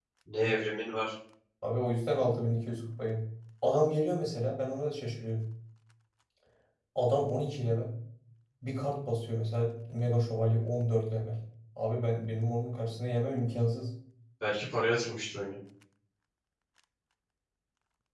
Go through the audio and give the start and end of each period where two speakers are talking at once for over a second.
none

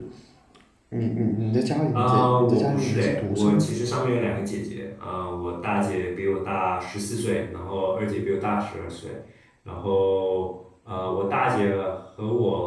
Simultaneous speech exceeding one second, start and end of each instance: 1.9-3.8

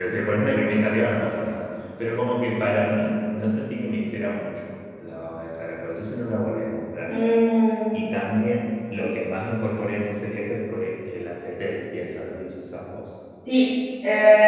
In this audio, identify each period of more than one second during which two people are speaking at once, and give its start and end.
none

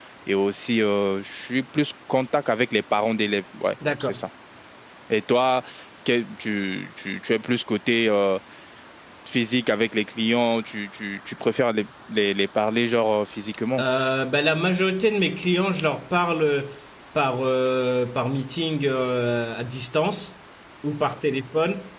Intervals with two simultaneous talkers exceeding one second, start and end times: none

